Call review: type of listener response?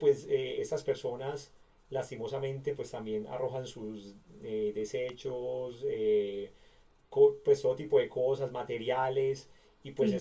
listening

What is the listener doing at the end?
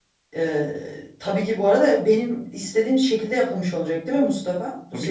taking over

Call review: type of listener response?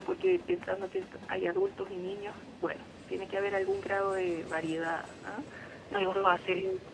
listening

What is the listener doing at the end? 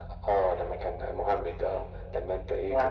listening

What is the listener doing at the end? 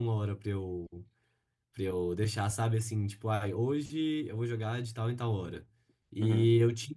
listening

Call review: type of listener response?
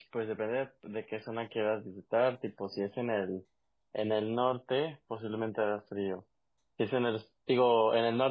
listening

